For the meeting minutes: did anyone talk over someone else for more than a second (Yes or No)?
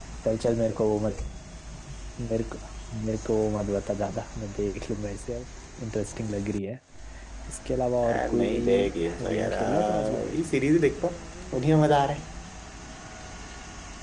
Yes